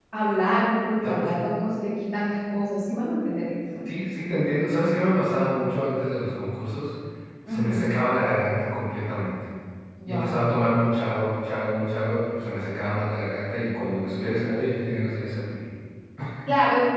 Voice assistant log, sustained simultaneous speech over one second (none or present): none